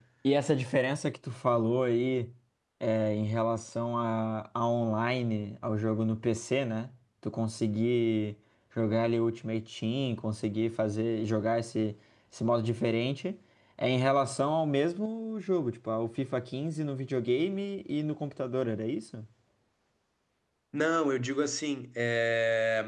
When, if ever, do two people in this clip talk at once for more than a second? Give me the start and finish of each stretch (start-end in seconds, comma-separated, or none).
none